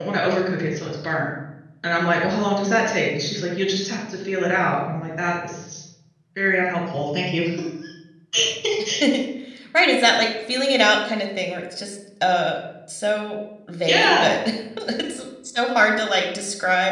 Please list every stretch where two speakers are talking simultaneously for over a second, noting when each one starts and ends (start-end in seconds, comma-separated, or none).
none